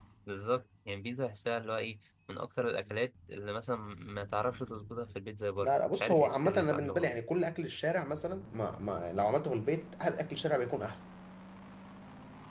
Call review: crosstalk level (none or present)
present